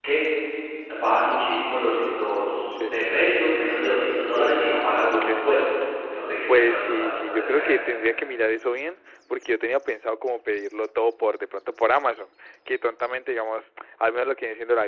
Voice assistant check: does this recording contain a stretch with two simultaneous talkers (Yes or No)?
Yes